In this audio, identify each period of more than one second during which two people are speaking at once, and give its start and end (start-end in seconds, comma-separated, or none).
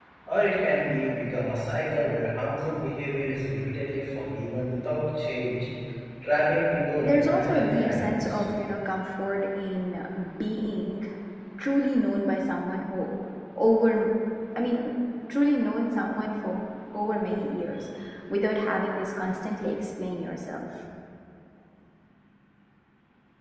7.0-8.4